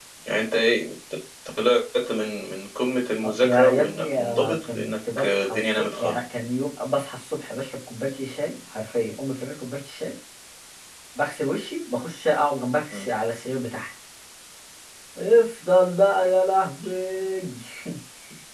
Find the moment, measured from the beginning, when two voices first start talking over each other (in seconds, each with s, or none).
3.2 s